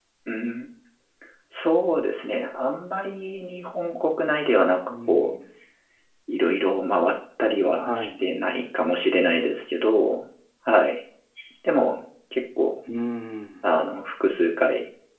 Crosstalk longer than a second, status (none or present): none